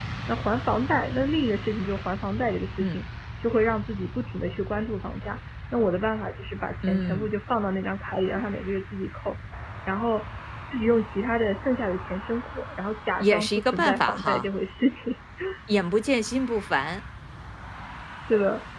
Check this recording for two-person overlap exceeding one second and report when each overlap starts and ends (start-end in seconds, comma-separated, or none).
13.2-14.5